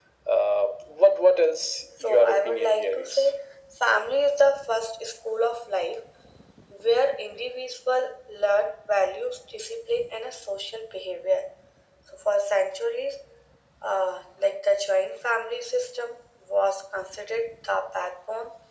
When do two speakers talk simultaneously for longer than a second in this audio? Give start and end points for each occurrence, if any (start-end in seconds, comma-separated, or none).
2.0-3.3